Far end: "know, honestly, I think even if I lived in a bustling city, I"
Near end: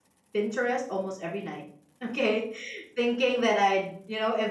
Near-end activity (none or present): present